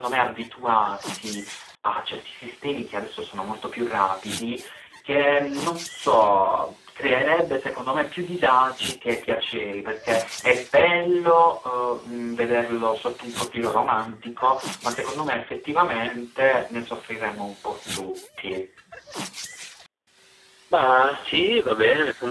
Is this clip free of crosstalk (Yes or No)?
Yes